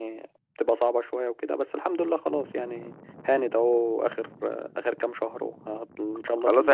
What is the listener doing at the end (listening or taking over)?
taking over